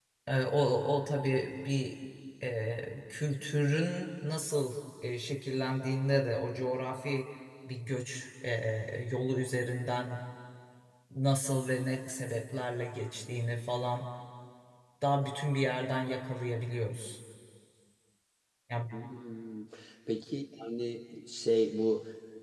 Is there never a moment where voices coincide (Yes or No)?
Yes